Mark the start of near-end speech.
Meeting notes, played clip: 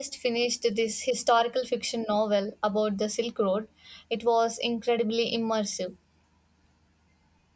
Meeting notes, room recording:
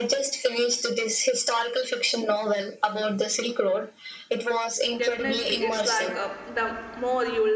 5.0 s

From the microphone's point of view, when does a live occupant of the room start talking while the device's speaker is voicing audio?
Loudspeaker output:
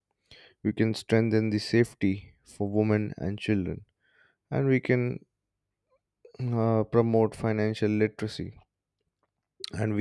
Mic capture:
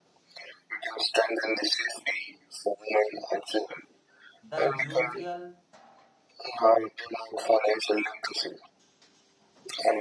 4.4 s

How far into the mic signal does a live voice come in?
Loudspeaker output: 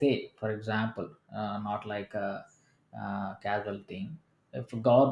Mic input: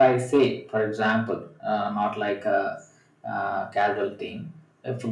none

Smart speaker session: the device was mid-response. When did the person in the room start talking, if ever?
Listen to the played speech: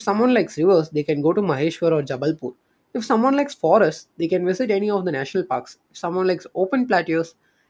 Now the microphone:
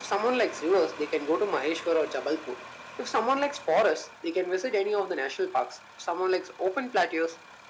none

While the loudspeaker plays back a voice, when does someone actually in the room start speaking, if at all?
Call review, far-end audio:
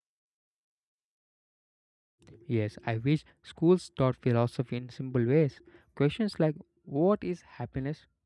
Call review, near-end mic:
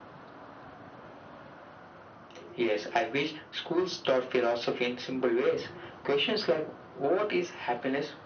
none

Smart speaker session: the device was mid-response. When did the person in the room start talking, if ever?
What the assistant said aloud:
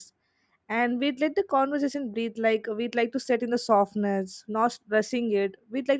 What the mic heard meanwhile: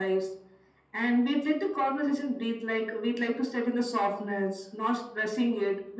none

